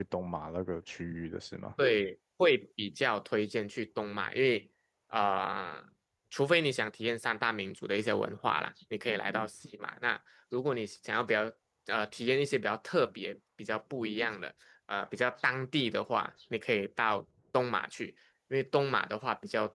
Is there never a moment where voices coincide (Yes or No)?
Yes